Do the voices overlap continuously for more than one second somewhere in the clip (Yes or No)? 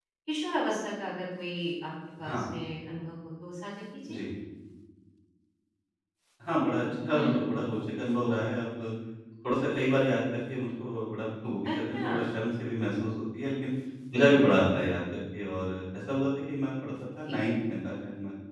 No